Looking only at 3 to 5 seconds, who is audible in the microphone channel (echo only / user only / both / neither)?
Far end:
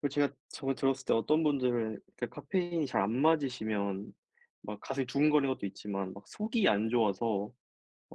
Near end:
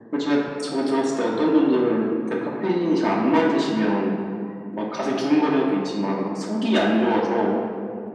echo only